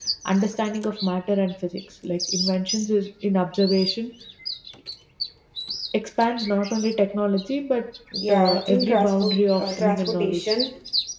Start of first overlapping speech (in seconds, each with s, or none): 8.3 s